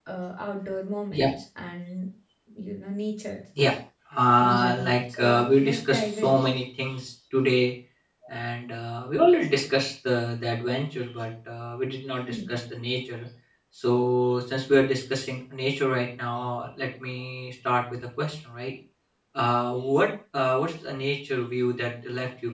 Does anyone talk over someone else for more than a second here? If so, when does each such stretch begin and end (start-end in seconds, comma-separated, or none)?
4.4-6.4